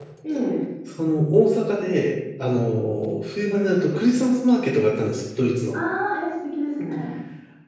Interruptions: none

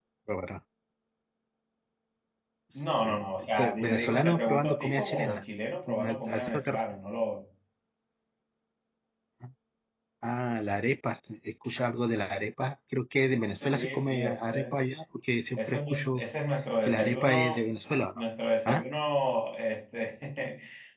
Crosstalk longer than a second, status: present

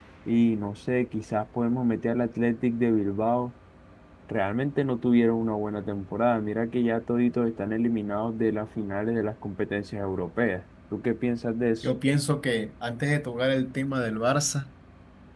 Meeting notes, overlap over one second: none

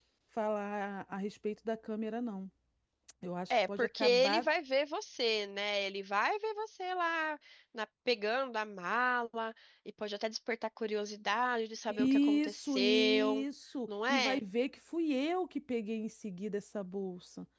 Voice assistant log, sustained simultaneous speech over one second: present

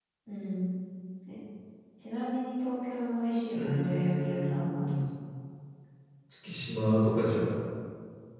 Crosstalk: present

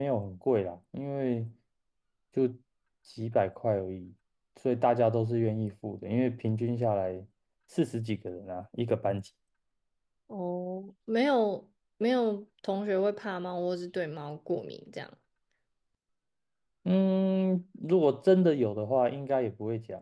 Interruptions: none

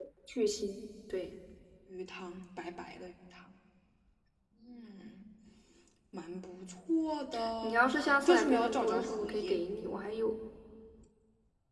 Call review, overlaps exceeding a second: present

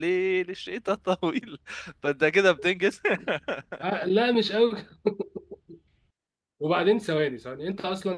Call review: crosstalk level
none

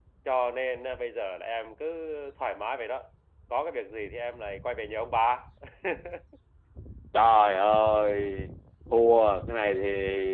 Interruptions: none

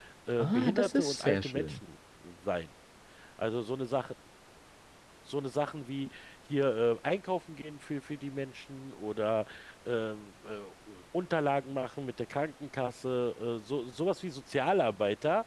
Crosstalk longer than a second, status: present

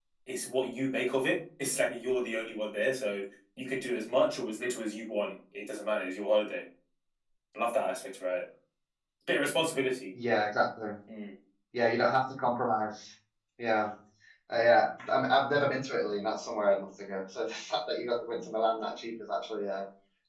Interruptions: none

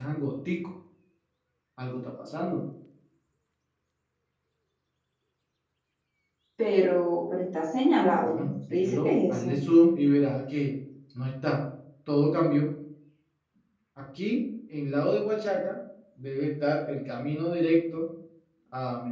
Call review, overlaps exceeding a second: present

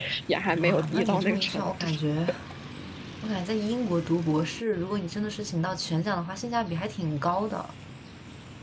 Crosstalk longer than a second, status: present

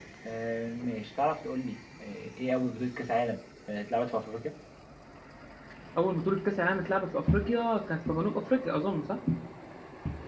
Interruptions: none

